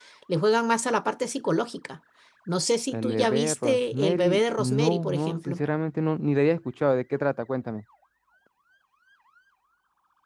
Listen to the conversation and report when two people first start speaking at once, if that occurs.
2.9 s

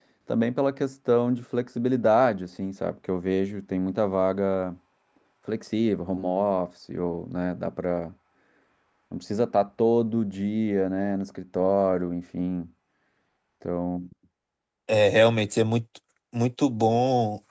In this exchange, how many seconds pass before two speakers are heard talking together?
none

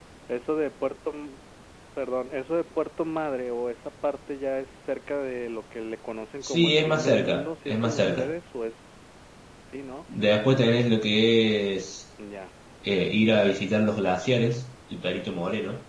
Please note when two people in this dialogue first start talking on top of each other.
6.4 s

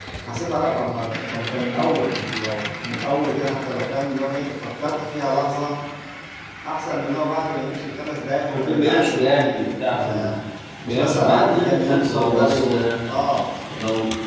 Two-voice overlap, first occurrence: 8.5 s

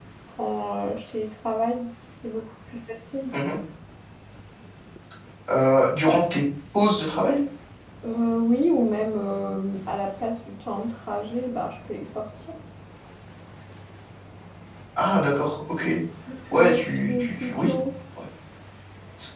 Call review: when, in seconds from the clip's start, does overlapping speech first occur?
16.5 s

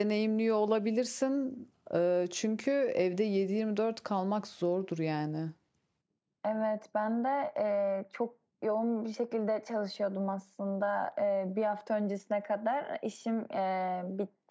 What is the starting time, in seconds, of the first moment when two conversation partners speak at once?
none

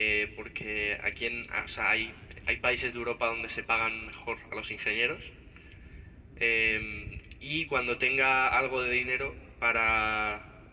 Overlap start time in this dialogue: none

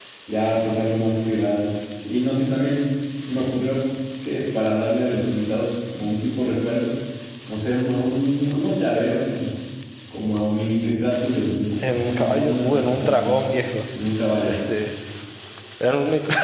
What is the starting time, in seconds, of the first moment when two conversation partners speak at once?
11.8 s

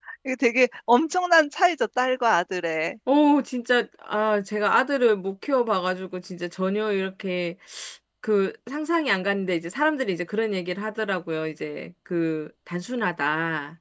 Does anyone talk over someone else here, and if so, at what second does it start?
none

